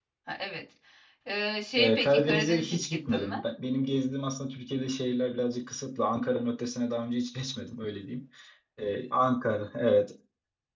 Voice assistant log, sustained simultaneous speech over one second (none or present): present